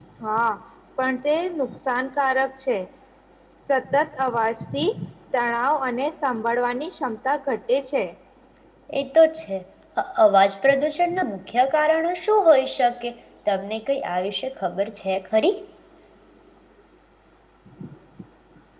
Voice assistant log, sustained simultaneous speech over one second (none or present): none